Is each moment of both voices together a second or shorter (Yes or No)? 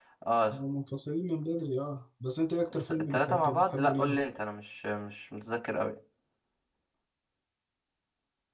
No